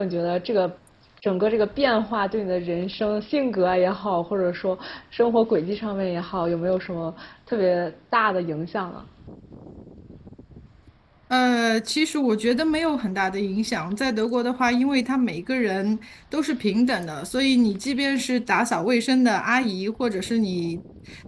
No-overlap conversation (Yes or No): Yes